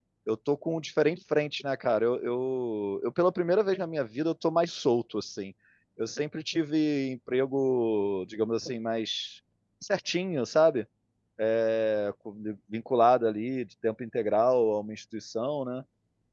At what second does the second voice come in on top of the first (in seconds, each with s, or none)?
none